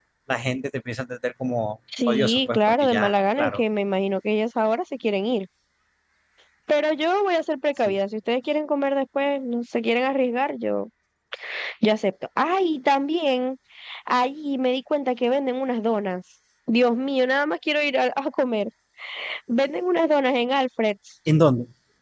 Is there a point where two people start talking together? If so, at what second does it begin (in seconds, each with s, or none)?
1.9 s